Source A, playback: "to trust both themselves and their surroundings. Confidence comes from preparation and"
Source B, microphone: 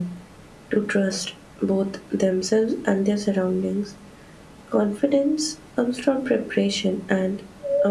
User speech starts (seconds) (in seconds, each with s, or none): none